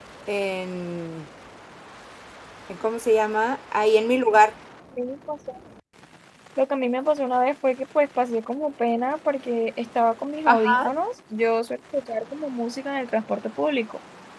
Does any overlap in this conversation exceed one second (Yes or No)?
No